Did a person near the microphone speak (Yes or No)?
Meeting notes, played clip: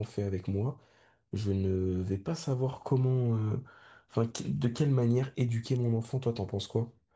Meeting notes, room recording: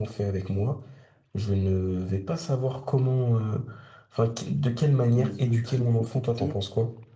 Yes